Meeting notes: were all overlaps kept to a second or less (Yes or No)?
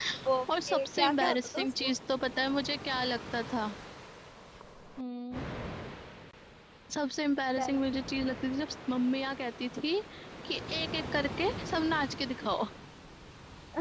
No